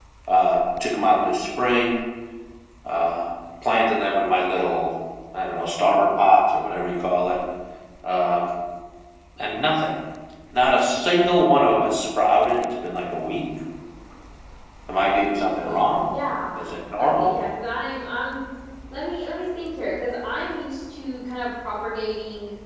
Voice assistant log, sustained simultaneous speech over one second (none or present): none